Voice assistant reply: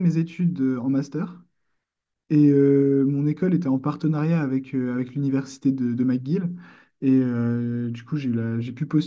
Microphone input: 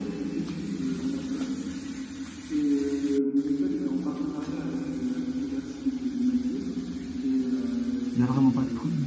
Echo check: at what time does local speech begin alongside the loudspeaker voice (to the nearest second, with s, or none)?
8 s